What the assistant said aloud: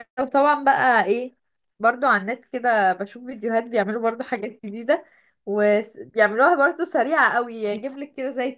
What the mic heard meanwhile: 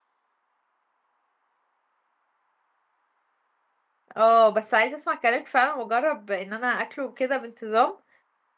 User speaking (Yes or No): Yes